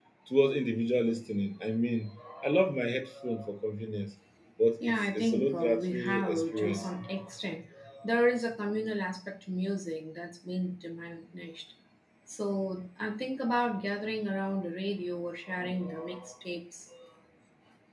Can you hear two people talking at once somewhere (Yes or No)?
Yes